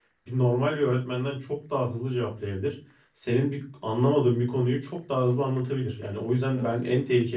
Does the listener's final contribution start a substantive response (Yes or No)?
No